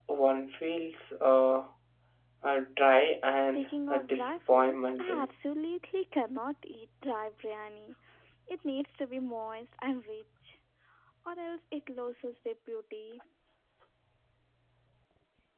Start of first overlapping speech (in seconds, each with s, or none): 3.4 s